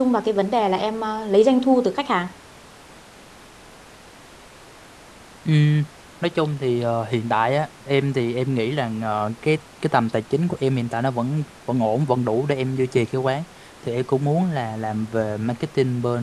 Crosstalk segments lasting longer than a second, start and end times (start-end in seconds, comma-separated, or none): none